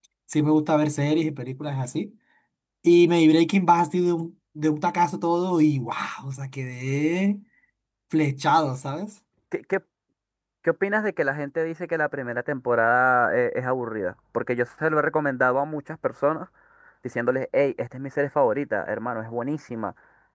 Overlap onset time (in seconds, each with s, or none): none